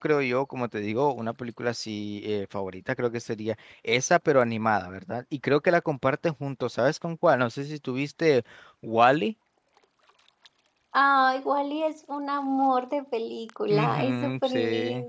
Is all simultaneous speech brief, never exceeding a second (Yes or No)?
No